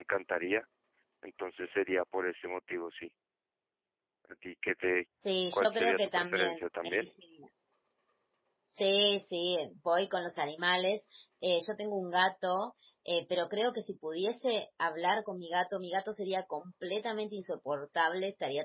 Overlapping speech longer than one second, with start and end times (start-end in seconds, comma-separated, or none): 5.5-7.1